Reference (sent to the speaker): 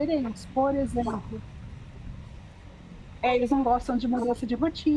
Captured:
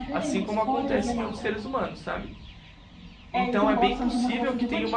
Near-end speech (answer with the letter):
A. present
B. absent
A